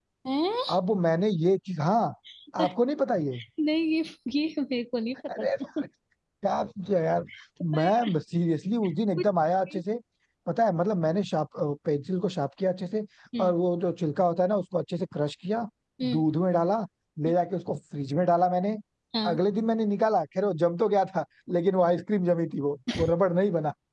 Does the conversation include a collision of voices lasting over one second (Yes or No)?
No